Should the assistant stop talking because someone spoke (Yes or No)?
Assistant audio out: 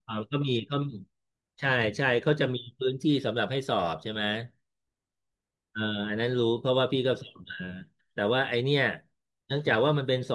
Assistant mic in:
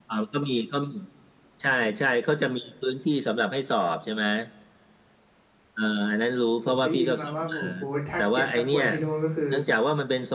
Yes